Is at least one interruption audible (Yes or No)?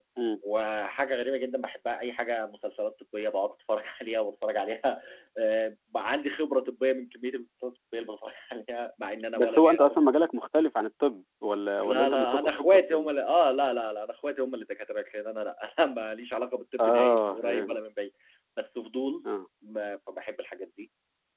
Yes